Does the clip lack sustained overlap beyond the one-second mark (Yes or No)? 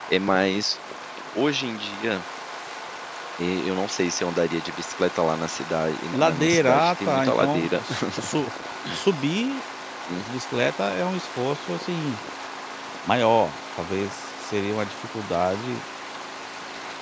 No